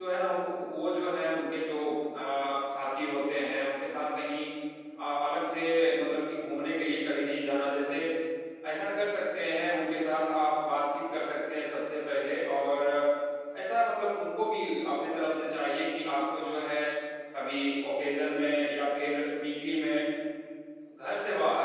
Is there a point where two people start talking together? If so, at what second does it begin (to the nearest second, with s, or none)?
none